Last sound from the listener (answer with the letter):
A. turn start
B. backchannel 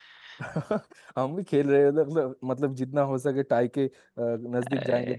A